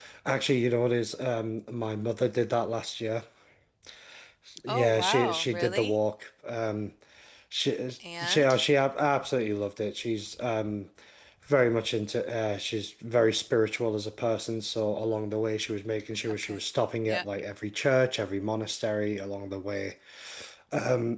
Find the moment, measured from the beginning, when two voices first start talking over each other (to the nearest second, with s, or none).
5 s